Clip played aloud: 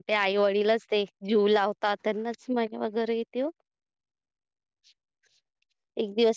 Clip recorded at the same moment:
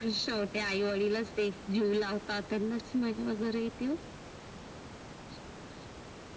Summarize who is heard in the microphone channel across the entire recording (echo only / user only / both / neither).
echo only